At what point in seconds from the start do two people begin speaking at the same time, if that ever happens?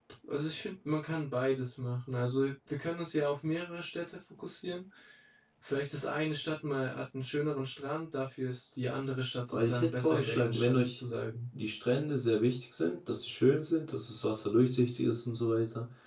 9.5 s

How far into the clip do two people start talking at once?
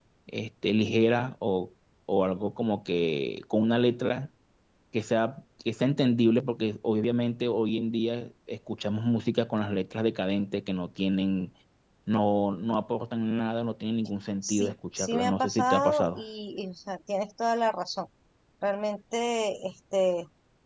14.4 s

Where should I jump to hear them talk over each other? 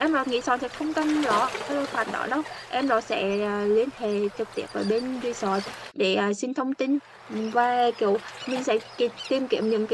none

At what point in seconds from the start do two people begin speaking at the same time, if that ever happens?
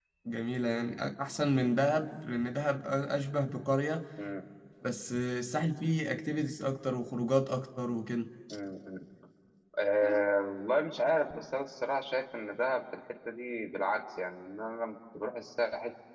none

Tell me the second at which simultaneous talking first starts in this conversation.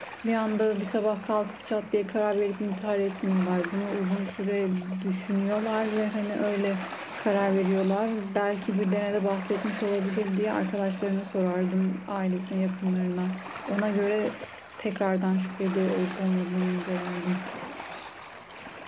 none

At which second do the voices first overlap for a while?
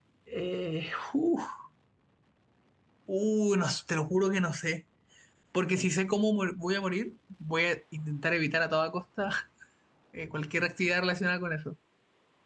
none

